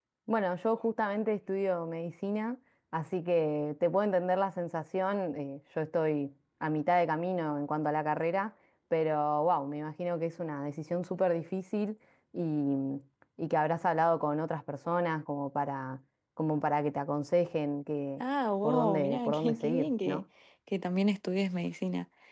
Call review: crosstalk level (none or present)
present